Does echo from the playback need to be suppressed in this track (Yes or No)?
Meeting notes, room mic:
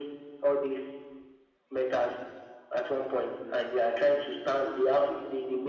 Yes